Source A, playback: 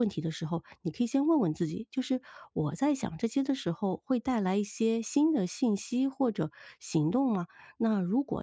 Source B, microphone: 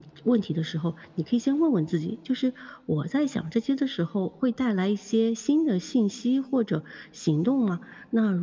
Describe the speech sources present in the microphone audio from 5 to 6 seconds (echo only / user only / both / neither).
echo only